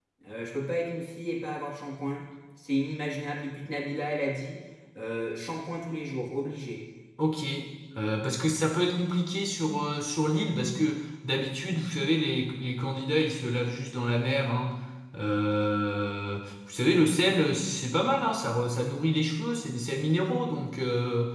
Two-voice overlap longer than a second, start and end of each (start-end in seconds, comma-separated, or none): none